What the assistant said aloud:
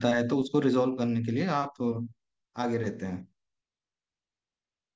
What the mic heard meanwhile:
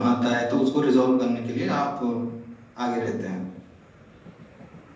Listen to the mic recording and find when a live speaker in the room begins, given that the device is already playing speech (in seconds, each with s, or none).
none